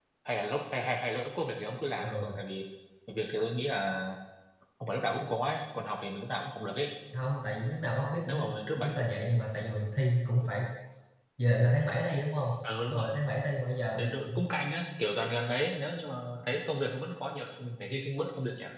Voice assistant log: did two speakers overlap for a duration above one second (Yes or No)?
No